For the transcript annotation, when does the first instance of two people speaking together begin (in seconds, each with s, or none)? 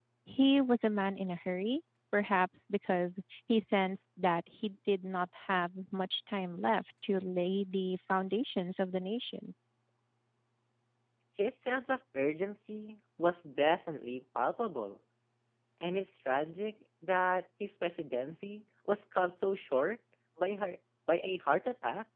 none